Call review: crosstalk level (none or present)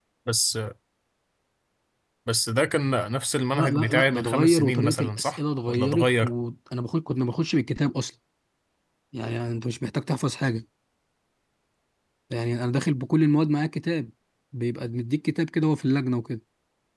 present